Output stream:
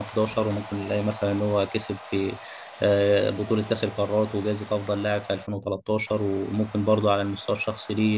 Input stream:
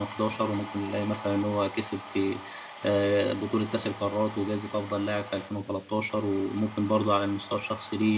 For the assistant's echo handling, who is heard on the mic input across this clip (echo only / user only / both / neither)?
echo only